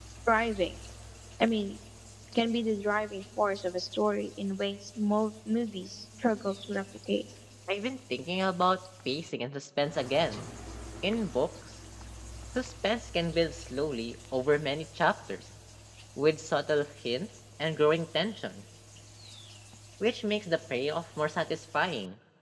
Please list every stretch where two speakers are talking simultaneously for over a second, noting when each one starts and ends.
none

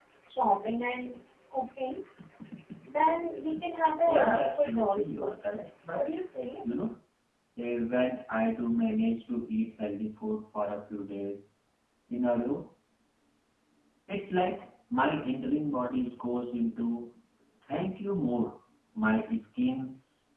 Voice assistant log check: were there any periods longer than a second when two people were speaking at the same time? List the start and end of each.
4.0-5.3

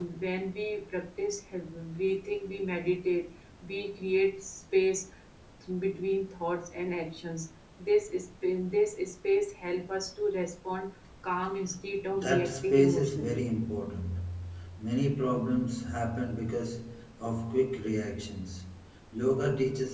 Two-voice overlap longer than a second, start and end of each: 12.2-13.4

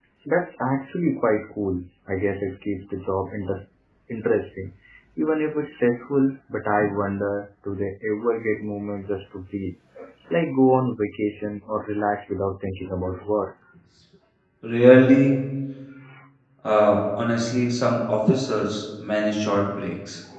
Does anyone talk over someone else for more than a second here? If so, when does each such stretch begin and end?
none

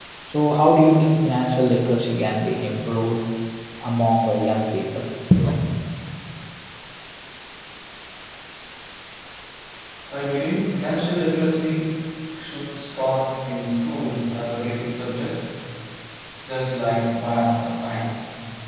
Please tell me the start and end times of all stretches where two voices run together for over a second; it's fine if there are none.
none

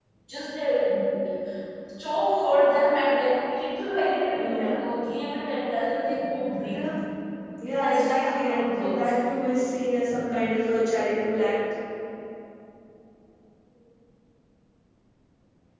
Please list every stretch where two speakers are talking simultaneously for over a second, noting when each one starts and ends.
7.8-9.1

